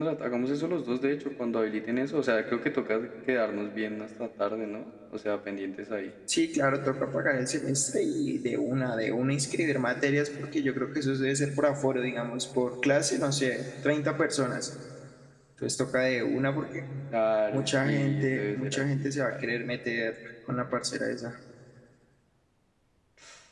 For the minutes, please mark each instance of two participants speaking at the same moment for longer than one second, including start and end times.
17.5-19.4

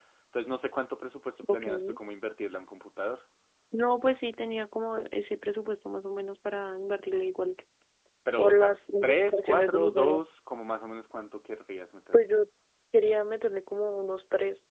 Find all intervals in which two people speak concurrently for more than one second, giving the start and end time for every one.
8.4-10.2

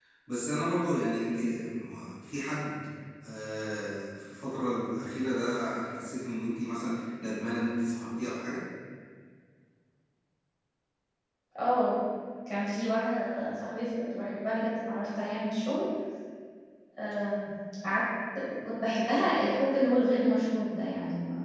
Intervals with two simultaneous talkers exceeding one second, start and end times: none

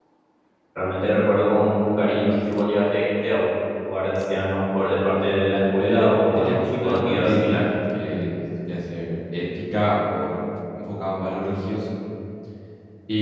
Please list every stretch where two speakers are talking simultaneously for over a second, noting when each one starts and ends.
5.8-7.6

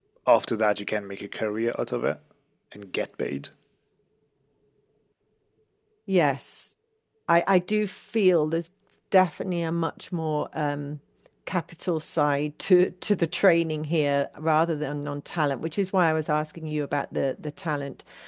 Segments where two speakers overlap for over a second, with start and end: none

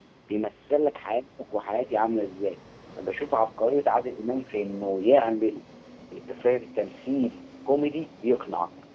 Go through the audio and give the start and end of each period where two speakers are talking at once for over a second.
none

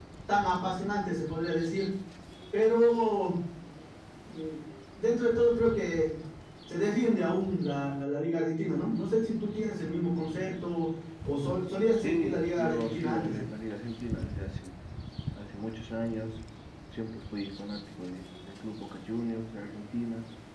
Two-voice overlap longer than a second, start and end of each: 12.0-13.3

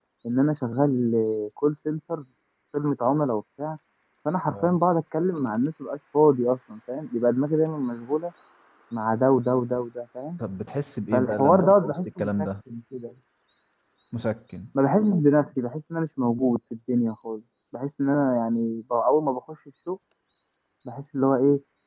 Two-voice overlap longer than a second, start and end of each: 11.1-12.5

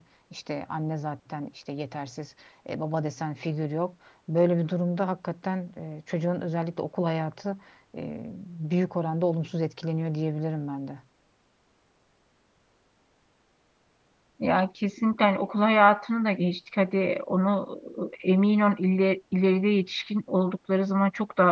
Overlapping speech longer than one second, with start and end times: none

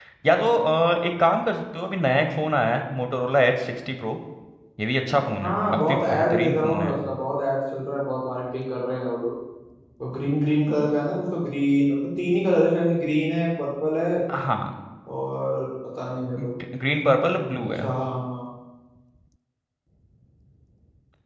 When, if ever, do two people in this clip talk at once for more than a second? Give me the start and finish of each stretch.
5.4-7.0

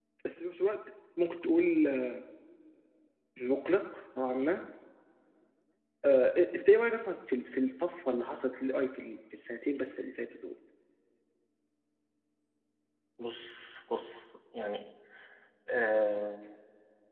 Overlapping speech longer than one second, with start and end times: none

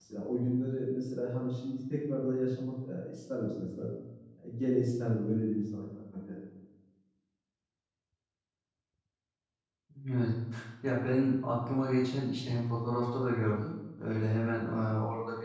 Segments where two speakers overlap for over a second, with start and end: none

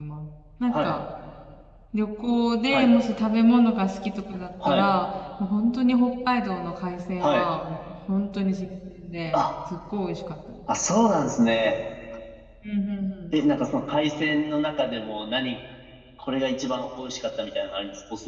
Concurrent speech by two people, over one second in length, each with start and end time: none

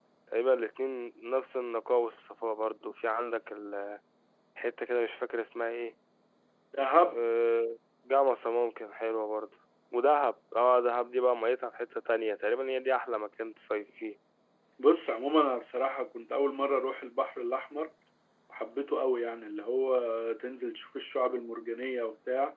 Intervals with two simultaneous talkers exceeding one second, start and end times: none

